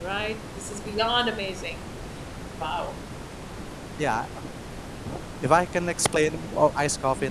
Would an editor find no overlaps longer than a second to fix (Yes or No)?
Yes